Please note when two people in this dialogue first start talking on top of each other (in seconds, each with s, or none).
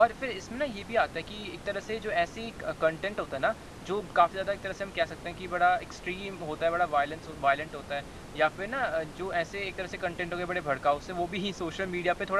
none